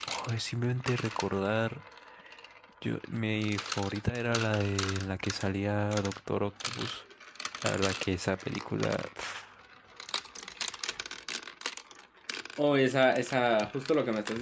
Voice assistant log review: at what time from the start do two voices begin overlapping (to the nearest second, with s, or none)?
none